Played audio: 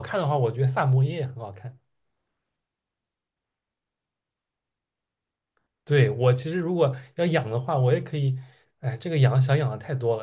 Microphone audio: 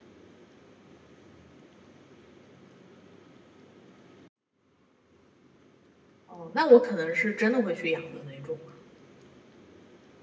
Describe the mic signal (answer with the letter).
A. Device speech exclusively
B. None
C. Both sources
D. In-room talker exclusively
D